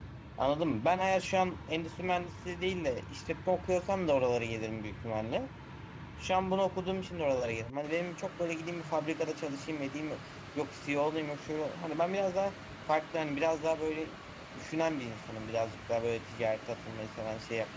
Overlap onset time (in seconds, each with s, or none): none